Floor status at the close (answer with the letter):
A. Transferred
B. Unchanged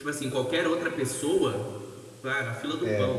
B